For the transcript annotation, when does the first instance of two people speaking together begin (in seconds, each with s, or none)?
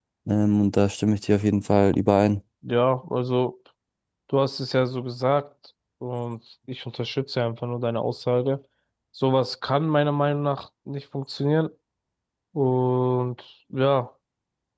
none